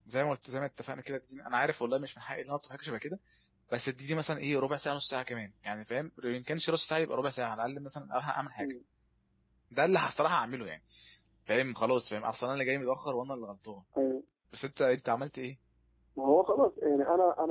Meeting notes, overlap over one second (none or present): none